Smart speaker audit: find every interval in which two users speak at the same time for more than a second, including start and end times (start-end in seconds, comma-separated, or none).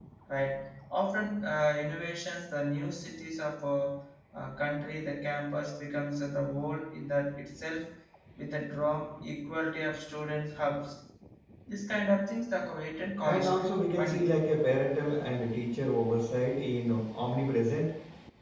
13.2-14.4